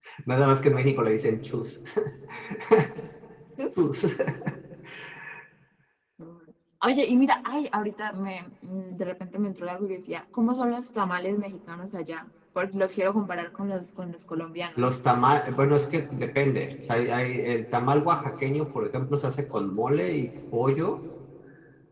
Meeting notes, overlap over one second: none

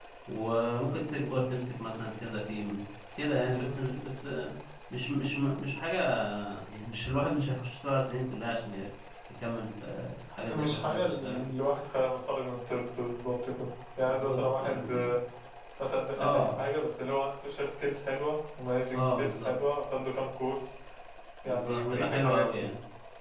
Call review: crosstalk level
present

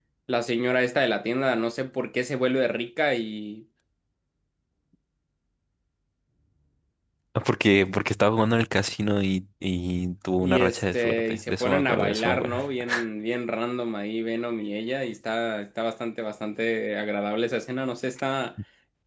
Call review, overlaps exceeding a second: present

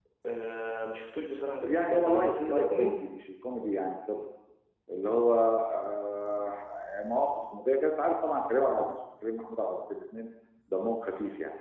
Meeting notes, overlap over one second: present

